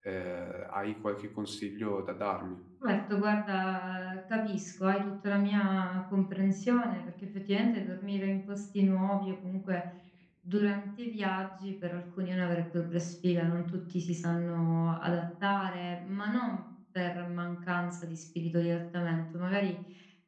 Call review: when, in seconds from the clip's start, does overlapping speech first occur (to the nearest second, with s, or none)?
none